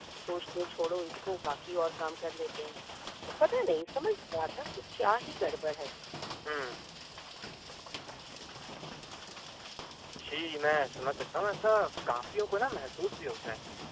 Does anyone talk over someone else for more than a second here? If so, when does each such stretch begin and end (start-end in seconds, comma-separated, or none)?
none